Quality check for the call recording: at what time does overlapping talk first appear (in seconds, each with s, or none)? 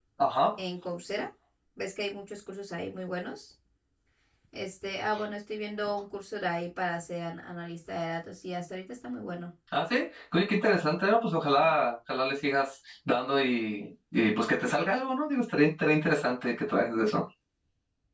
none